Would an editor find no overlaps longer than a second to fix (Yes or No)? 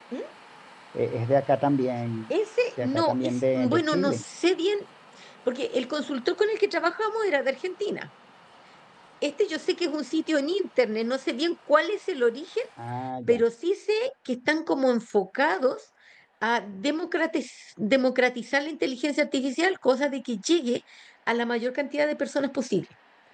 No